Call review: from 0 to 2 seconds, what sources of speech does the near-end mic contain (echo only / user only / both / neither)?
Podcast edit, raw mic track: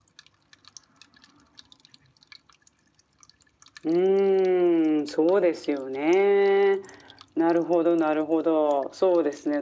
neither